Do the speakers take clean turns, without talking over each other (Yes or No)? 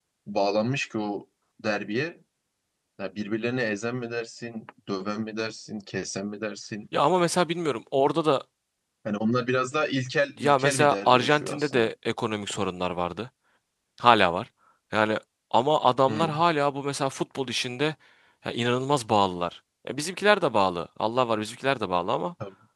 No